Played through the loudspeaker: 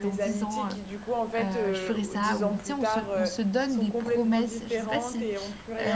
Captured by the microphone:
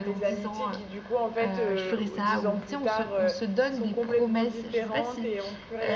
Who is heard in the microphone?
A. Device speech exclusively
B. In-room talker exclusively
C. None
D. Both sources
A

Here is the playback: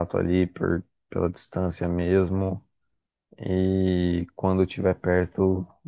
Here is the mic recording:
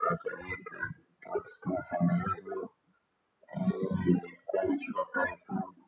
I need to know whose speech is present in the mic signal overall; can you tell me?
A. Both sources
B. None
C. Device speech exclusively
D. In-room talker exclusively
C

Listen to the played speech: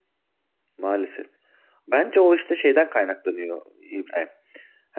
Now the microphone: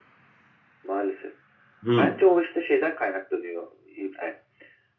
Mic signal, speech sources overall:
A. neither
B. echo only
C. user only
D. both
D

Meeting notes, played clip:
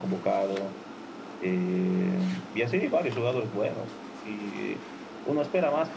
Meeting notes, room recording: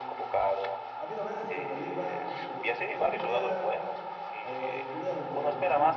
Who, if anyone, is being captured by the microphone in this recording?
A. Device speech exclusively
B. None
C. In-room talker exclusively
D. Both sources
D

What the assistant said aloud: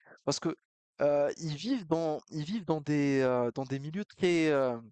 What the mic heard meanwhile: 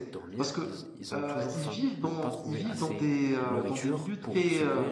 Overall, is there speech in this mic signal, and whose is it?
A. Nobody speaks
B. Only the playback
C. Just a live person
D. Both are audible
D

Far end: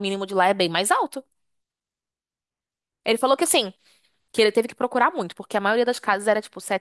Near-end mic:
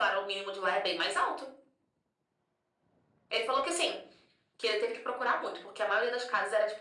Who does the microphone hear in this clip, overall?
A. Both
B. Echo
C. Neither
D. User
B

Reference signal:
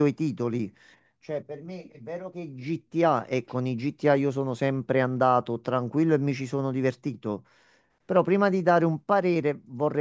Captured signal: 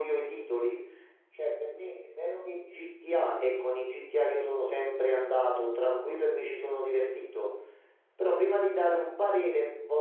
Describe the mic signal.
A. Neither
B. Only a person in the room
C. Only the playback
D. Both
C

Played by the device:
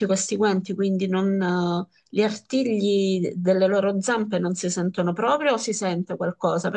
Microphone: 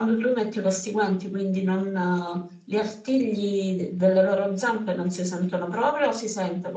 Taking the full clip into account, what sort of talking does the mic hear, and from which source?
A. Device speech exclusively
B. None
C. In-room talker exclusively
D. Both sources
A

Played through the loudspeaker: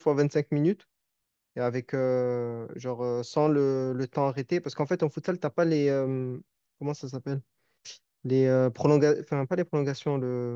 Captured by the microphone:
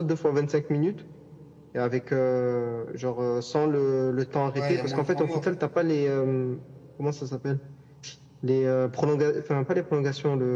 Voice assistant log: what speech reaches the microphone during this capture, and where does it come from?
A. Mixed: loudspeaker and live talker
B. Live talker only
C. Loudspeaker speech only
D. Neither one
A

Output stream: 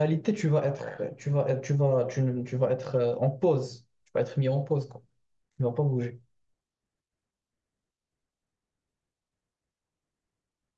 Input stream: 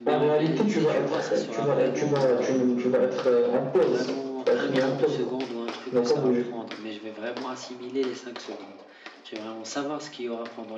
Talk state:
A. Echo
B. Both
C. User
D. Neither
B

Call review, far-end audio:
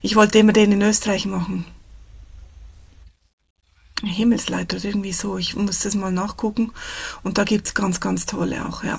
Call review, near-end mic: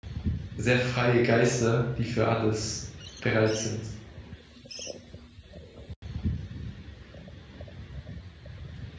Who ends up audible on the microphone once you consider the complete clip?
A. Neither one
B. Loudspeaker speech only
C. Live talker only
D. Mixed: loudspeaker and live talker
C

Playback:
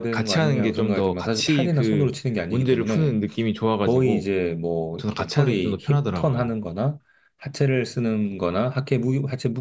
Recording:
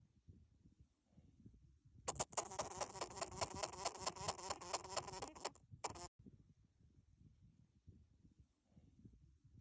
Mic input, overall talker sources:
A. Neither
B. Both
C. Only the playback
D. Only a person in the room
A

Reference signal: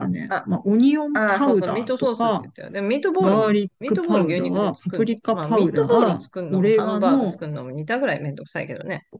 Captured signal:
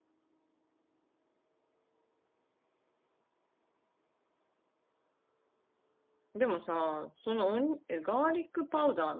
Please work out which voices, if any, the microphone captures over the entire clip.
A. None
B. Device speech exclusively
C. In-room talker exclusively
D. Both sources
C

